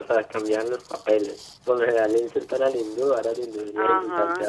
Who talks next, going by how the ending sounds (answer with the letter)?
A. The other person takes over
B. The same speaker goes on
A